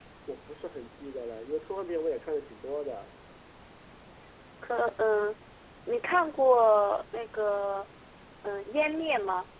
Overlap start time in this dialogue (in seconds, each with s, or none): none